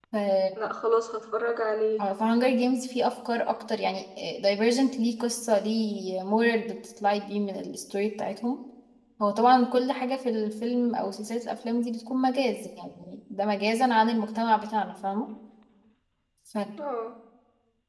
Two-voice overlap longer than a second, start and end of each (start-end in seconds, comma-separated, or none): none